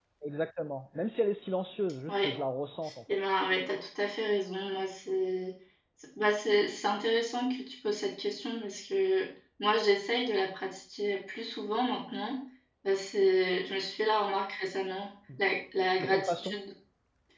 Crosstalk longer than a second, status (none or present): none